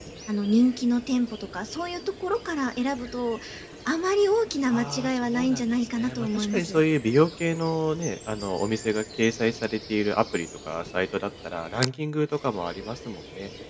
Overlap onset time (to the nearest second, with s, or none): 5 s